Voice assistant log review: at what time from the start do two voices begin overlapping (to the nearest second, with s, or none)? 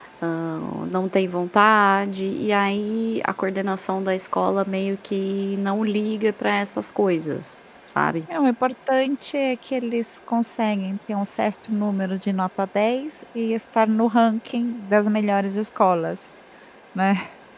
none